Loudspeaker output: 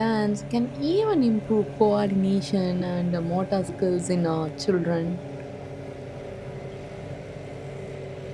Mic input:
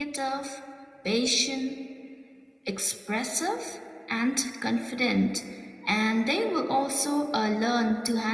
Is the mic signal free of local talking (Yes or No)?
No